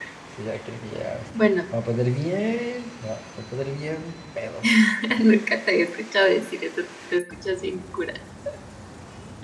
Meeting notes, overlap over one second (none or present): none